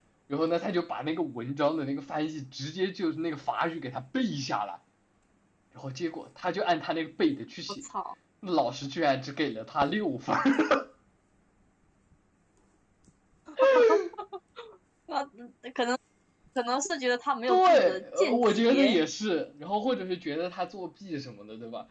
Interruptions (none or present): present